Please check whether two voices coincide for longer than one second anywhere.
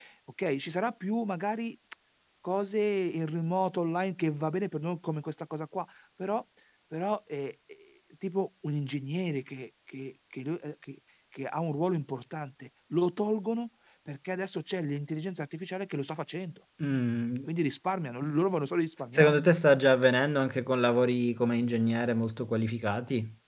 No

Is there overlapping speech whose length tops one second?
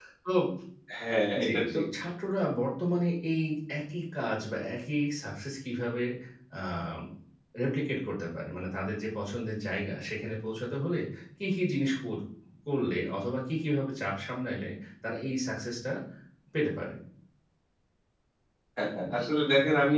No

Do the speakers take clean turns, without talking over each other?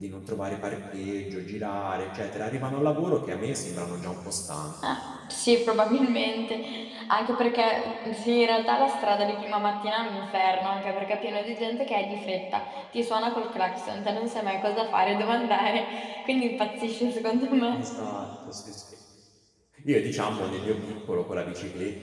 Yes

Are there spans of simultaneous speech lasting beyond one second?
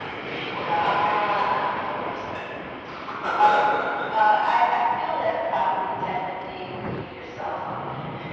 Yes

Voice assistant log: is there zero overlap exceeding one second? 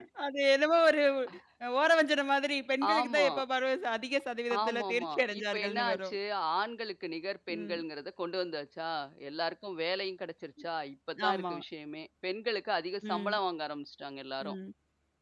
No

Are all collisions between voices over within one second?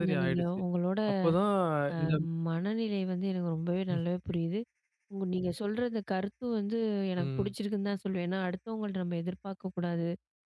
Yes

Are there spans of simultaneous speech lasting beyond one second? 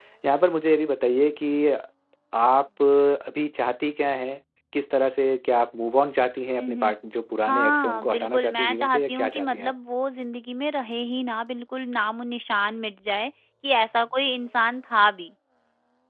Yes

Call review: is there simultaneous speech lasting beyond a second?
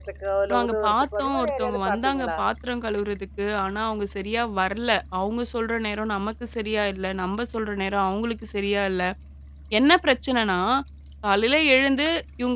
Yes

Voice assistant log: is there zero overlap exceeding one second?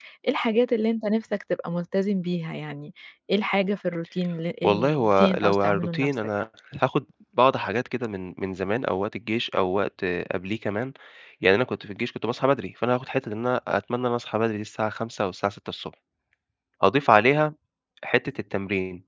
No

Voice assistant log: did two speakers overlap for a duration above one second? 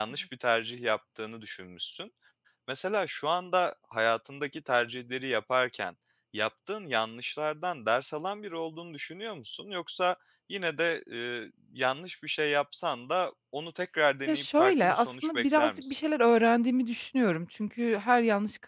Yes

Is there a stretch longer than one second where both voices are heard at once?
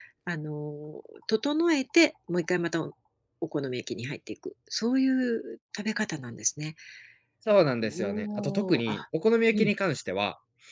Yes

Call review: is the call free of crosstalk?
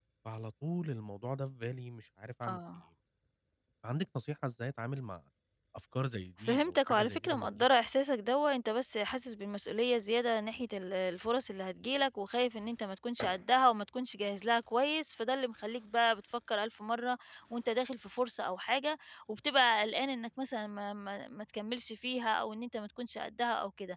No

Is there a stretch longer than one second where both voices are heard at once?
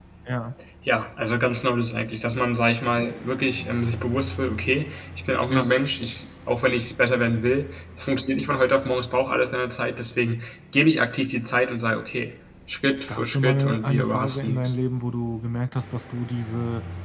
Yes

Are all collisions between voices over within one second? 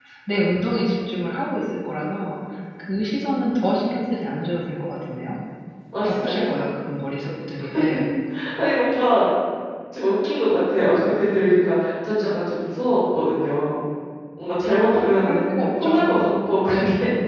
No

